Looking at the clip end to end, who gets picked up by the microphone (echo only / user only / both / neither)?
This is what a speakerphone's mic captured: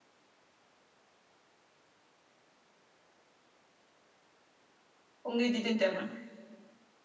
user only